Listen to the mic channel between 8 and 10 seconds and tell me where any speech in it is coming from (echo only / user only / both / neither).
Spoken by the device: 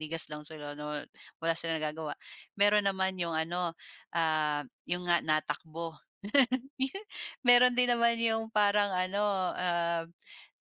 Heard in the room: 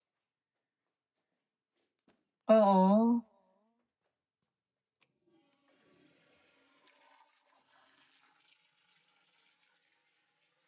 neither